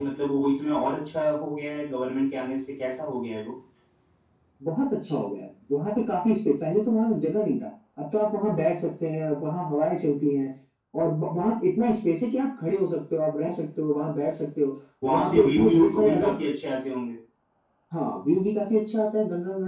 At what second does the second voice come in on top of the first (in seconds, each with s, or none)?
15.1 s